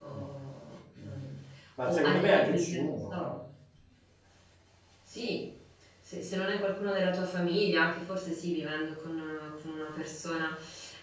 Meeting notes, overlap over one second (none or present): present